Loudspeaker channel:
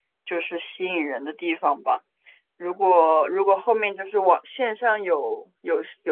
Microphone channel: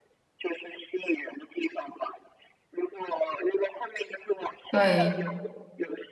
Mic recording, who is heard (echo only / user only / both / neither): both